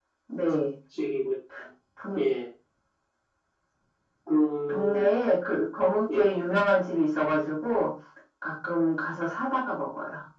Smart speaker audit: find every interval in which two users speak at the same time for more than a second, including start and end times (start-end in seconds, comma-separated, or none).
none